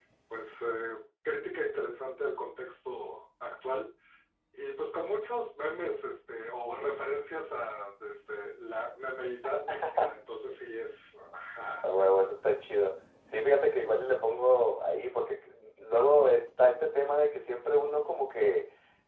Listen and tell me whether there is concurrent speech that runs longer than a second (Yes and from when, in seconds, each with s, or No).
No